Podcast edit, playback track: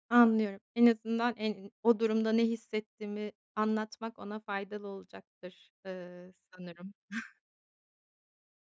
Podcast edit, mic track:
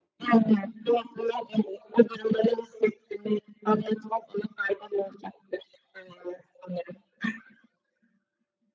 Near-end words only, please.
none

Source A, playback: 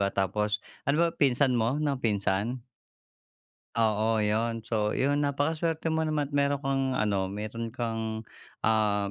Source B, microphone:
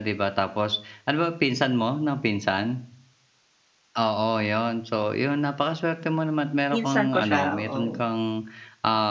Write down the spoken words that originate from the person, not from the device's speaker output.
Pinsan ko siya, oo.

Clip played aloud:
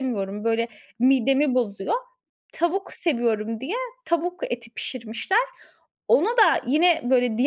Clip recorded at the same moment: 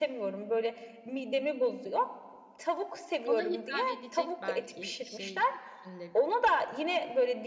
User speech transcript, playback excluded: Ona hitap edecek belki, bir şey de düşünülebilir.

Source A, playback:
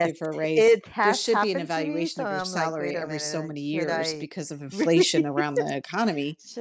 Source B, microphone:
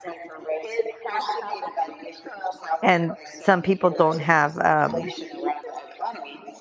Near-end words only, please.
and some people don't have, um

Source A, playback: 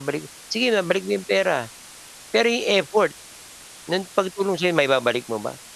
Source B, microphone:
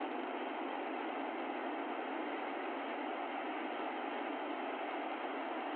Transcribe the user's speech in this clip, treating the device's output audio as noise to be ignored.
none

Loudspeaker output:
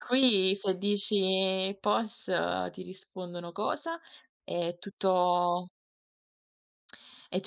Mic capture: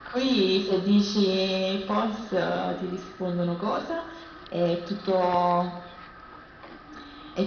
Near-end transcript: none

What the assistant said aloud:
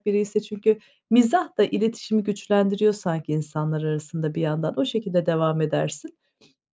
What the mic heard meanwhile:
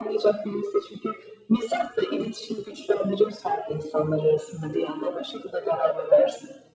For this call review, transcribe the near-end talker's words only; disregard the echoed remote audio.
none

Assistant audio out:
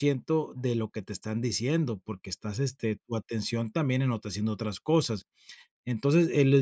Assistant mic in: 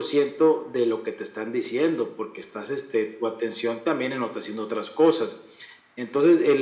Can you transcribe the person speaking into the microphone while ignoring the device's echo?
none

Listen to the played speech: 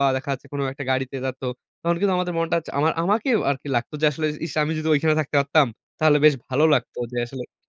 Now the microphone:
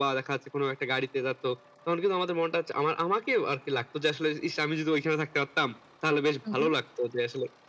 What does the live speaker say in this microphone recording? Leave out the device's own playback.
হু, হু।

